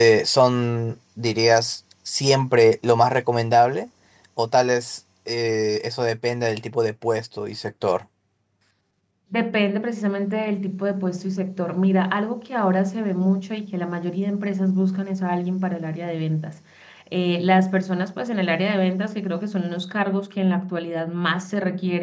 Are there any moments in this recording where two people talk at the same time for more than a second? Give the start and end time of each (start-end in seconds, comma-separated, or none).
none